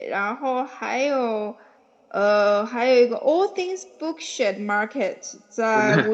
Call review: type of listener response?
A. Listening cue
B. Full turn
A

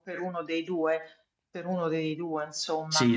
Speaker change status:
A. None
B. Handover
B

